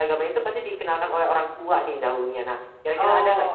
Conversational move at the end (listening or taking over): taking over